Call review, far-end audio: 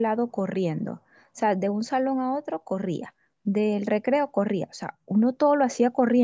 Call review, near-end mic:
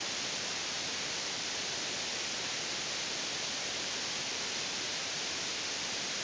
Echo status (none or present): none